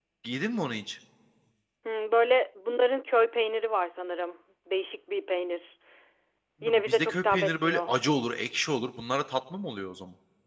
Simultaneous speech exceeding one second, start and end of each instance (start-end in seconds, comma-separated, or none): 6.6-7.9